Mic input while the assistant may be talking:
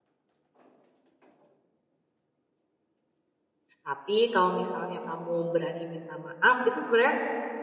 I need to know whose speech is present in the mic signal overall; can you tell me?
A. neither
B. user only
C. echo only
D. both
B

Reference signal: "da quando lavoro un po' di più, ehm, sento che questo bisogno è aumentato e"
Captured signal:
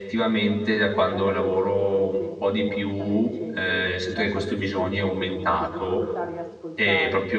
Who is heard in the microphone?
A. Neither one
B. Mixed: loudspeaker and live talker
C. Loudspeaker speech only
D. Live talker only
B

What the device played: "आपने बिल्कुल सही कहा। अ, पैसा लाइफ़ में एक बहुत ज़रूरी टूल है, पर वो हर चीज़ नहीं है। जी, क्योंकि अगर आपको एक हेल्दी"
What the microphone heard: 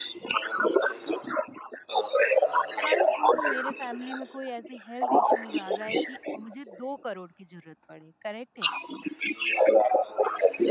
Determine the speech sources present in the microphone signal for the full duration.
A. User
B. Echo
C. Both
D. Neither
C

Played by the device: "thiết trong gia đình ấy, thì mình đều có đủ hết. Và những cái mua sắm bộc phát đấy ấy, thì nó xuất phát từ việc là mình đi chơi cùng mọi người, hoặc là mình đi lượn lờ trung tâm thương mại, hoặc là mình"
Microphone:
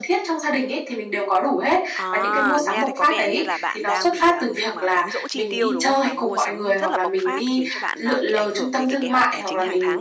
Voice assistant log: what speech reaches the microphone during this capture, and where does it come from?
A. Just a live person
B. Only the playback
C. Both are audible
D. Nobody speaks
C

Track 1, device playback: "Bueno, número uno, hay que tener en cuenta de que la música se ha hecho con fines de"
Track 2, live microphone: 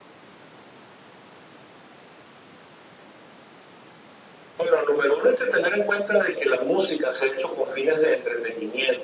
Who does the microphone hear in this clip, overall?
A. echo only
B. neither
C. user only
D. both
A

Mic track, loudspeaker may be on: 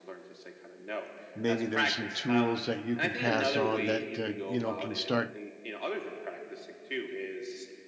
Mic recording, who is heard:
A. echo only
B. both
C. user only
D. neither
B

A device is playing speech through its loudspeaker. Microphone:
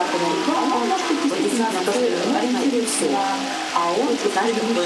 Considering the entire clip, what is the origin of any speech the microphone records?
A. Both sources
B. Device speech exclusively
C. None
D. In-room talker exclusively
B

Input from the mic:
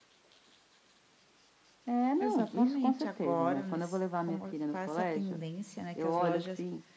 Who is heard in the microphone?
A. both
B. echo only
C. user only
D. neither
A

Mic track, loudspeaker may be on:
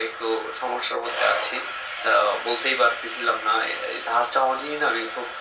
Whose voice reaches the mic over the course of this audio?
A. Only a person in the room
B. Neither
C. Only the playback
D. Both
C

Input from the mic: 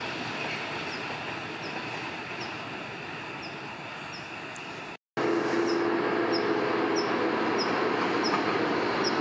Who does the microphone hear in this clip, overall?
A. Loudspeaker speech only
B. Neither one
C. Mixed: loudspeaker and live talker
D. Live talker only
B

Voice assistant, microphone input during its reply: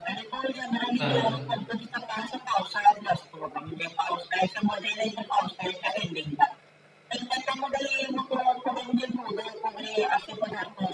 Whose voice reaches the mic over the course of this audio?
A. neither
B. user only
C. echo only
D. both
D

